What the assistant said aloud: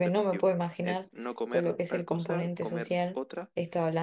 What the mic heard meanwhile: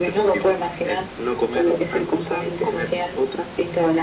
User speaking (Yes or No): No